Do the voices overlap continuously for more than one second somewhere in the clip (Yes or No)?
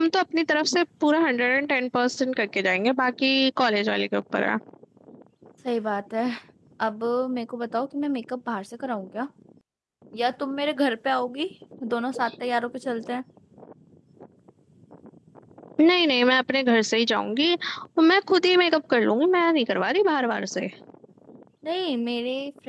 No